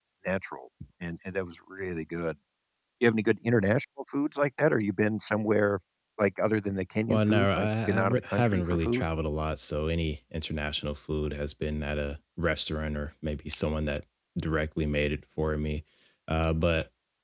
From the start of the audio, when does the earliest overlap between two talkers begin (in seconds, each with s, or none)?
7.1 s